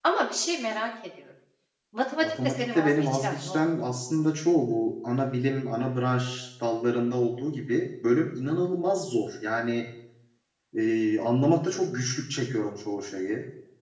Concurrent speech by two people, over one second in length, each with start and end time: 2.2-3.6

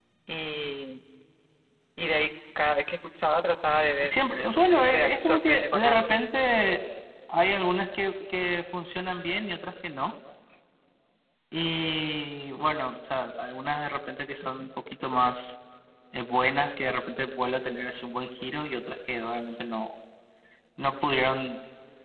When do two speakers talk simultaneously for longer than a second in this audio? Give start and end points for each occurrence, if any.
4.0-6.1

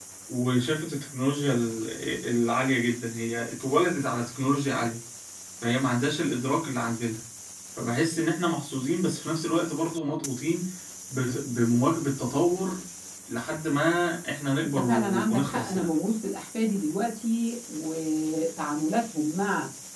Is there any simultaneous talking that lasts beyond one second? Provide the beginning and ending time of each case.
14.6-15.9

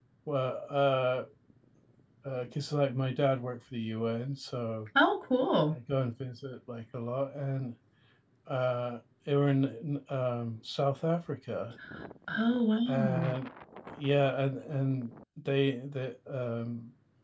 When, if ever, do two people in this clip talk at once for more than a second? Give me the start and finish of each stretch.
none

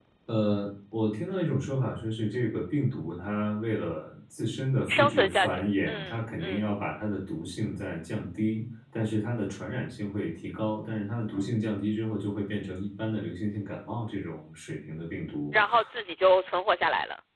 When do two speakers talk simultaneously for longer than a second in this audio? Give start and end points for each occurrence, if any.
4.9-6.6

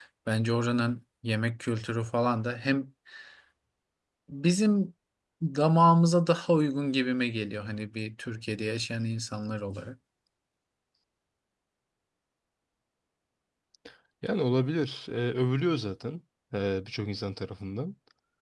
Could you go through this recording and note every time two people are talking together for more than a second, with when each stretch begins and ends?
none

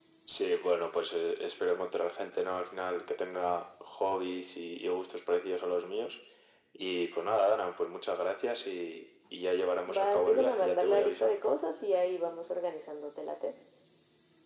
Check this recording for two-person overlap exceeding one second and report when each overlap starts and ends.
9.9-11.4

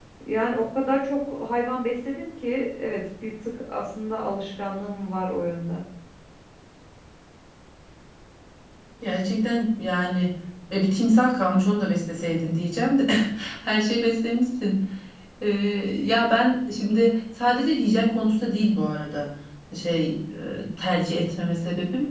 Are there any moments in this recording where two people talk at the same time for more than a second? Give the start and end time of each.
none

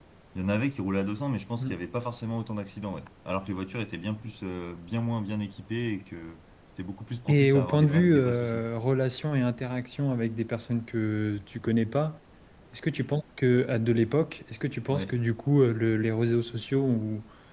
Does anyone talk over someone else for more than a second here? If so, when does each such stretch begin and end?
7.3-8.6

